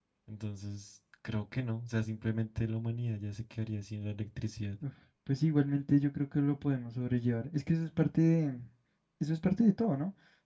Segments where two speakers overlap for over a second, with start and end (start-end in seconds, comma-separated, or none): none